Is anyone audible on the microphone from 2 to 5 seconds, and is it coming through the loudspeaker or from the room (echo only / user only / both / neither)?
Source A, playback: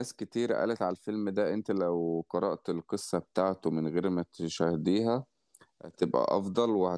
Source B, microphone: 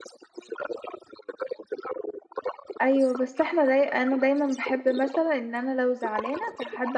both